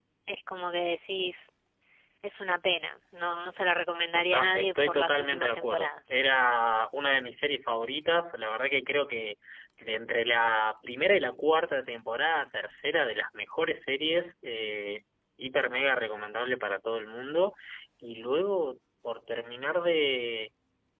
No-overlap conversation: No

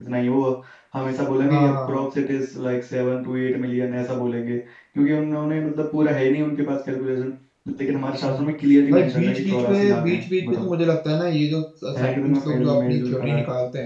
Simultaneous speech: Yes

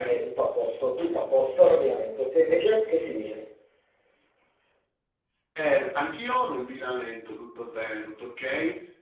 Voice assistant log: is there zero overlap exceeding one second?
Yes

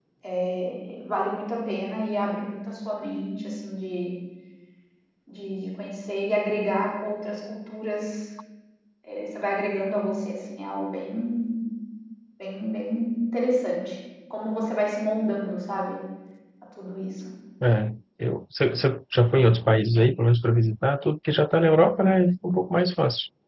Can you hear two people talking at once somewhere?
No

